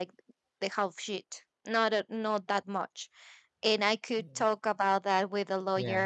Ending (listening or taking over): listening